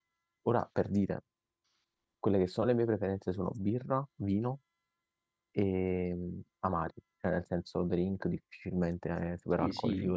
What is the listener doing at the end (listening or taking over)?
taking over